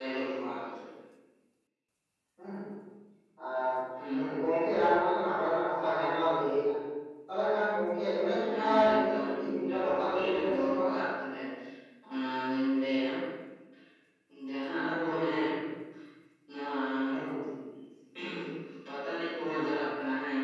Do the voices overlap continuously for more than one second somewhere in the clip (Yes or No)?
Yes